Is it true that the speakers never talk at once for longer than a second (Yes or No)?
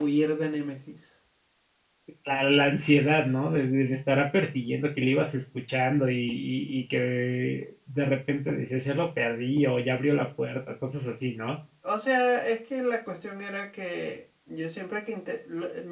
Yes